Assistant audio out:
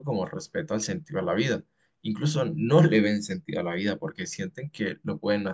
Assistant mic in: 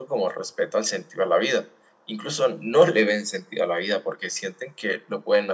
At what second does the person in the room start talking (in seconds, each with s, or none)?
none